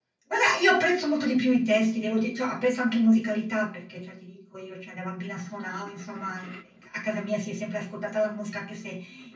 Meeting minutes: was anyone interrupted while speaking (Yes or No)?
No